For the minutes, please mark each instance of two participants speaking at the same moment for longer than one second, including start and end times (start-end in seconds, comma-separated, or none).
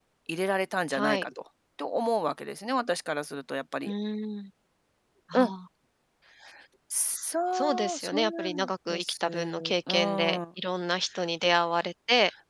7.5-10.4